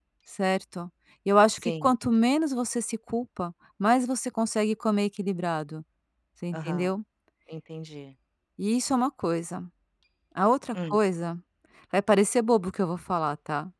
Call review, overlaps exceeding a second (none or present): none